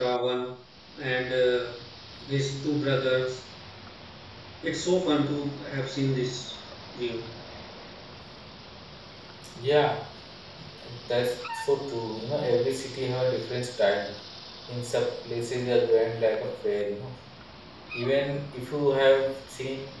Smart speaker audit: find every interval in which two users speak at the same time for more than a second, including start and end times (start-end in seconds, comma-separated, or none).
none